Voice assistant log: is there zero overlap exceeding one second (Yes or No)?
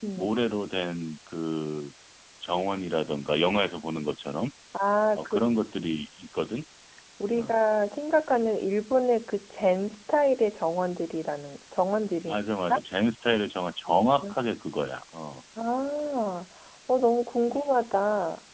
Yes